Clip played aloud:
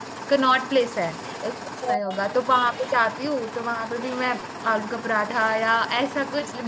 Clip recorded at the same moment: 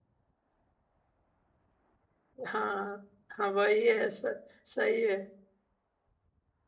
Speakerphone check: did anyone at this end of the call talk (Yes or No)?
Yes